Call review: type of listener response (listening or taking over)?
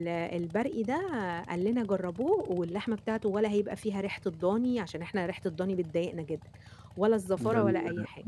taking over